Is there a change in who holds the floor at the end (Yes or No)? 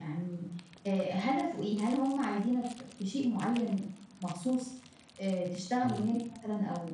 No